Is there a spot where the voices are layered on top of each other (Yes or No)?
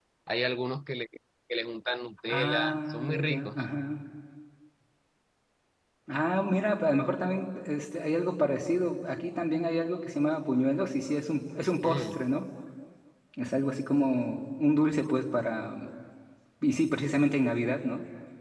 Yes